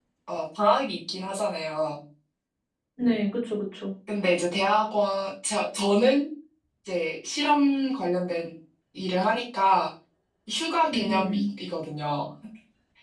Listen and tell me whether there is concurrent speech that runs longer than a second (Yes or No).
No